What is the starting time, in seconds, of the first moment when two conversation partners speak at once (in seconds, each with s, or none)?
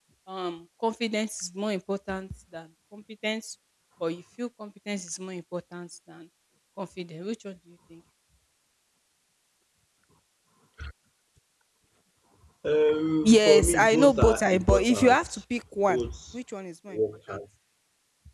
13.2 s